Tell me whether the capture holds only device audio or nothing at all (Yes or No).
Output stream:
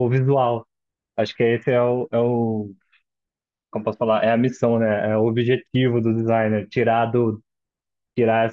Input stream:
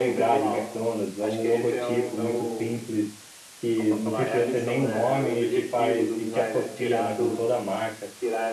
No